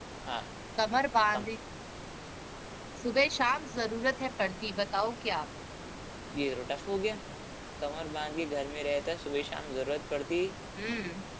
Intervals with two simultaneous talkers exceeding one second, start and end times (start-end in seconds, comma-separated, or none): none